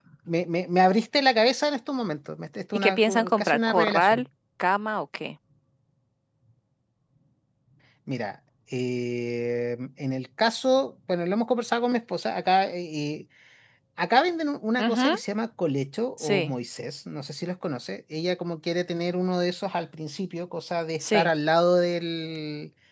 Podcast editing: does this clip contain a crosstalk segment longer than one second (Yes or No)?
Yes